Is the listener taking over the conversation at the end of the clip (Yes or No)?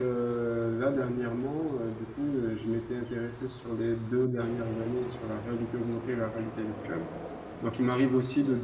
No